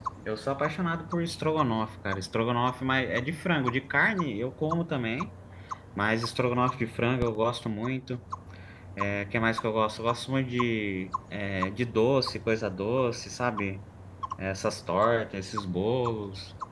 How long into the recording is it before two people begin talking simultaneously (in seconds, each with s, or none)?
none